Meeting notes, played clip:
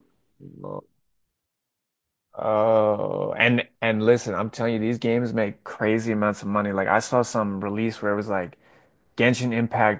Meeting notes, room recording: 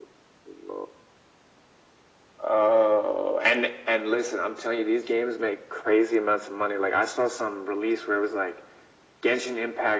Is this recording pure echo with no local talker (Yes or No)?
Yes